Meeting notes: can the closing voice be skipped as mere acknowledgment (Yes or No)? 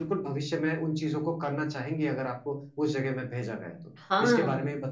No